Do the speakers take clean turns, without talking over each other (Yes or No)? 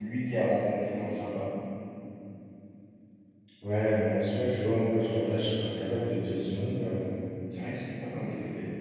Yes